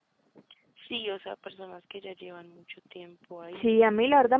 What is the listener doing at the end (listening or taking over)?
taking over